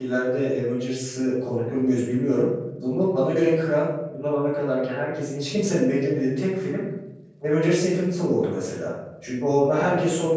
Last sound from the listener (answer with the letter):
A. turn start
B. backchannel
B